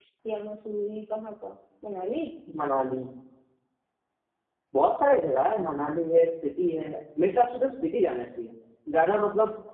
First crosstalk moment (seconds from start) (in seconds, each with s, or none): none